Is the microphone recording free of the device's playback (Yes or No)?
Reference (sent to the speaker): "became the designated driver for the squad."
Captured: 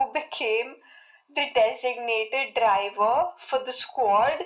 No